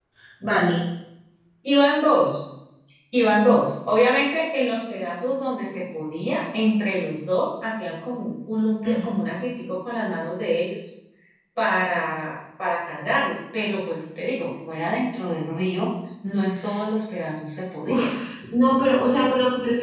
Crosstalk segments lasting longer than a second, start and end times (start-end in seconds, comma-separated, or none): none